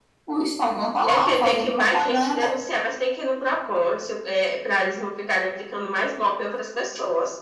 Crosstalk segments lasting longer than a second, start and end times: 1.1-2.4

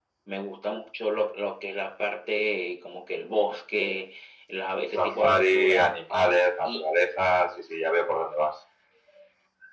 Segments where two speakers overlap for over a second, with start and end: 5.0-6.8

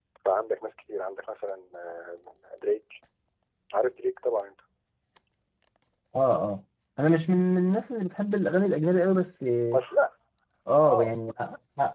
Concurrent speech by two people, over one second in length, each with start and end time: none

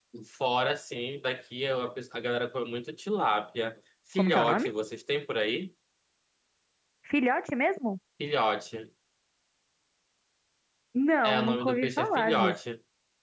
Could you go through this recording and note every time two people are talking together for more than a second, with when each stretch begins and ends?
11.2-12.6

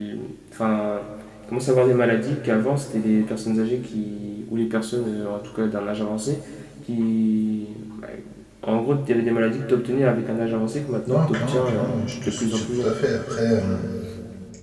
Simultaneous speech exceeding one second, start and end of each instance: 11.1-13.1

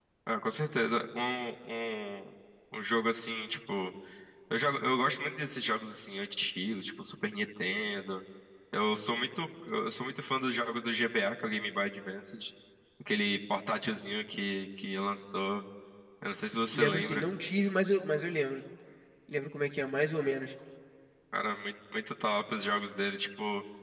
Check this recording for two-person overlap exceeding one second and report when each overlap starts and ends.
none

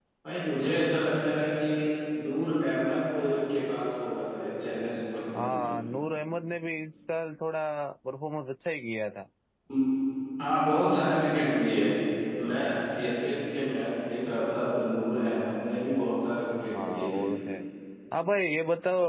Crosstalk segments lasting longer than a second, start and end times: none

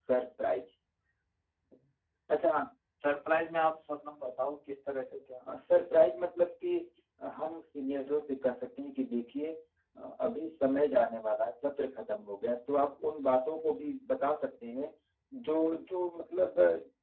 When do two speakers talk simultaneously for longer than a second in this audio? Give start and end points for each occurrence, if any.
none

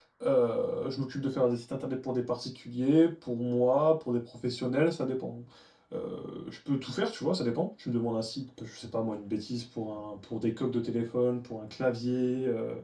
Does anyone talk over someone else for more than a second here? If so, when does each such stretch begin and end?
none

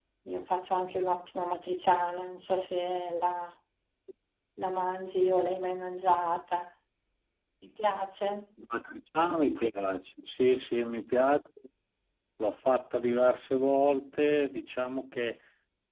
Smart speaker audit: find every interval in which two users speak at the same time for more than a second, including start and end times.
none

